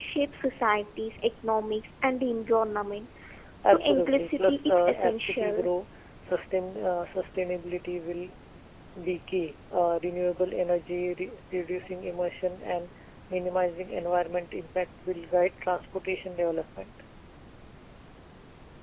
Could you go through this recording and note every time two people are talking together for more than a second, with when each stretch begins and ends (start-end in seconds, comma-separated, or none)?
3.6-5.7